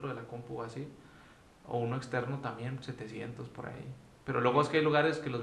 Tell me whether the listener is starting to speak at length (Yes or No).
No